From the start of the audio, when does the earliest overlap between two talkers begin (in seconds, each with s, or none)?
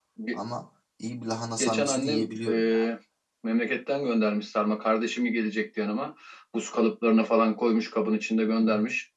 1.6 s